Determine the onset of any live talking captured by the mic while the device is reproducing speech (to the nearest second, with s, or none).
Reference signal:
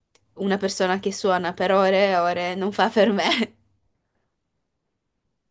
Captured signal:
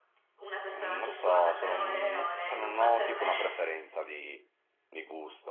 1 s